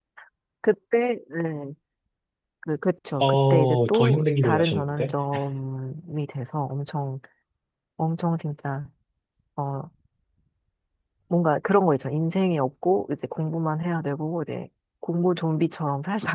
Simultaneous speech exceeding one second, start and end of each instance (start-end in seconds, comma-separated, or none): 3.2-5.1